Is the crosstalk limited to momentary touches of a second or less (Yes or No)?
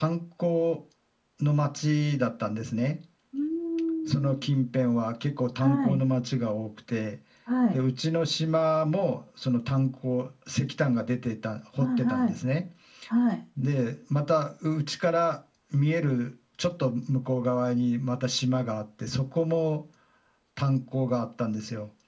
Yes